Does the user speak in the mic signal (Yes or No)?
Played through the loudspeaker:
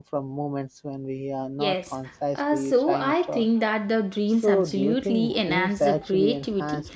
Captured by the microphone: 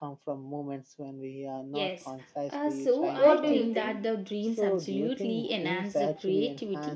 Yes